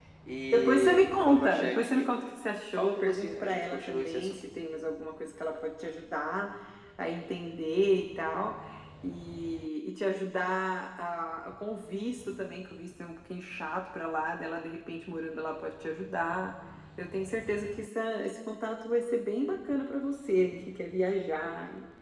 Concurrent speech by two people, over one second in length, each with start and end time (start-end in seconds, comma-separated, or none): 0.5-2.3, 2.7-4.4